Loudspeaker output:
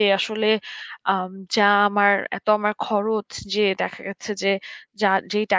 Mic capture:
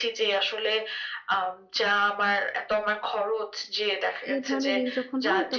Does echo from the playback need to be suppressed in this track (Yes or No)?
Yes